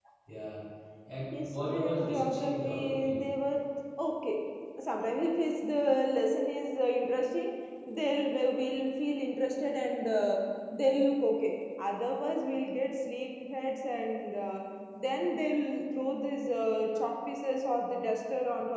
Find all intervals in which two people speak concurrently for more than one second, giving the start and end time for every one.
1.3-3.2

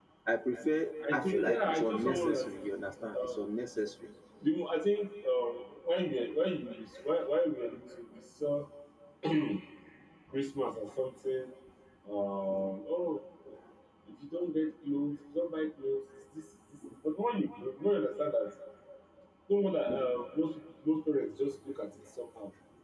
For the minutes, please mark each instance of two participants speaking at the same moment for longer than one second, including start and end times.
1.1-2.5

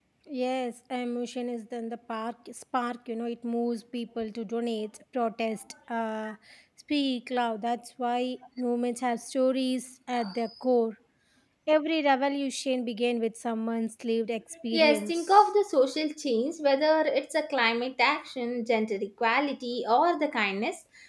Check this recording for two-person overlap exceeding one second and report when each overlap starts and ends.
none

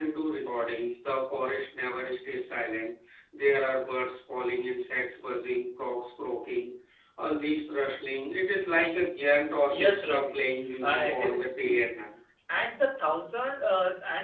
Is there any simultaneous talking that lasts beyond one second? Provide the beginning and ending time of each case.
9.7-11.9

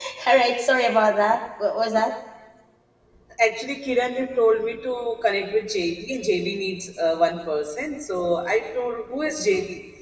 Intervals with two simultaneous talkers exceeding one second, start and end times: none

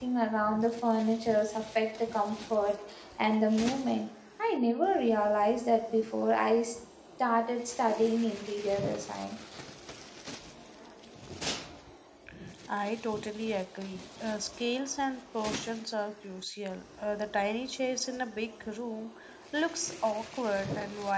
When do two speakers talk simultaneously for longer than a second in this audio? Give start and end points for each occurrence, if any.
none

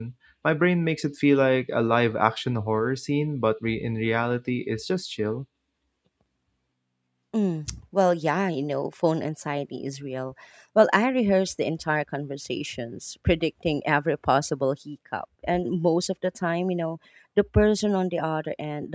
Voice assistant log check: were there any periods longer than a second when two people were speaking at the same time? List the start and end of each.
none

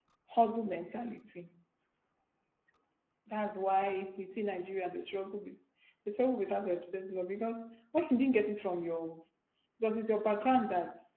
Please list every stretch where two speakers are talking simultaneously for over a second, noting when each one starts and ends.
none

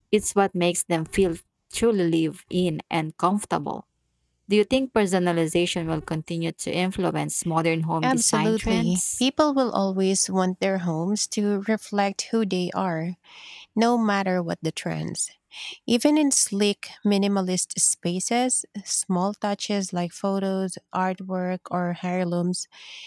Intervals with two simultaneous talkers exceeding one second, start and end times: 8.0-9.2

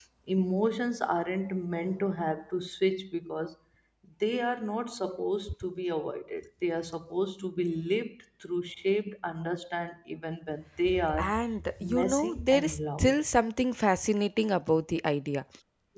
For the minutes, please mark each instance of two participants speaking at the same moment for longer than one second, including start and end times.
11.8-13.2

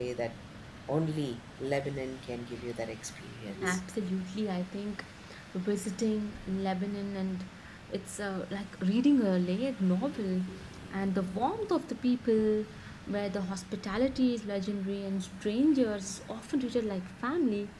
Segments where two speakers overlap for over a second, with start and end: none

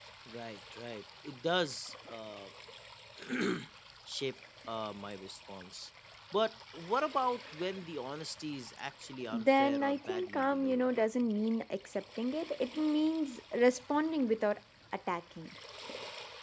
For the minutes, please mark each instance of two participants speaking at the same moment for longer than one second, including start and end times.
9.3-10.9

